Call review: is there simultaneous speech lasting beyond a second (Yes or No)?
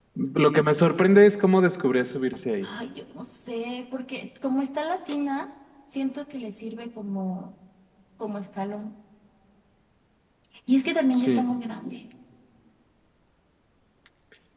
No